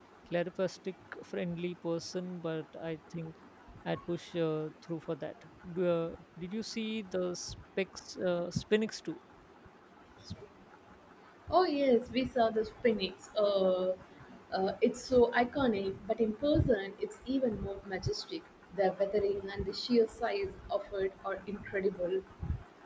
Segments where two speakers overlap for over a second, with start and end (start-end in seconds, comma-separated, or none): none